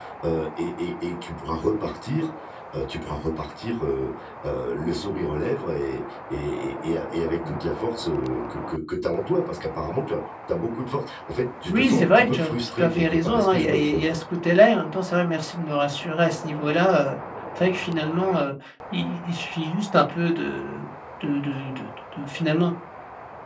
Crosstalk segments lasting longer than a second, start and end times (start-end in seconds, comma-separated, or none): 11.7-14.1